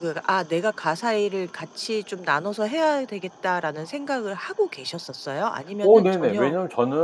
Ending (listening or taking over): taking over